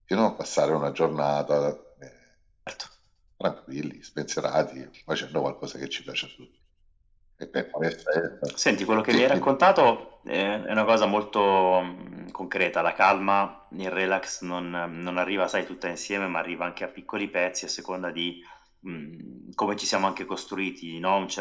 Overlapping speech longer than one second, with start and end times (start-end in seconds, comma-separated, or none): none